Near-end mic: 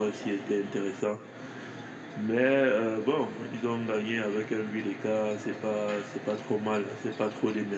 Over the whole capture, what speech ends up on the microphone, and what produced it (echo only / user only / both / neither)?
echo only